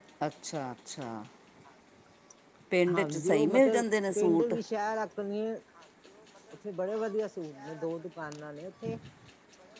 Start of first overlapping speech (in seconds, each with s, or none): 2.9 s